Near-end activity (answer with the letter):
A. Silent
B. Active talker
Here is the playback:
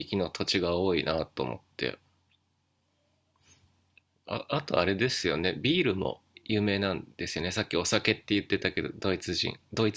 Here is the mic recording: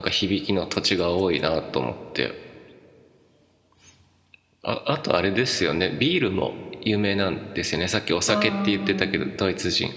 B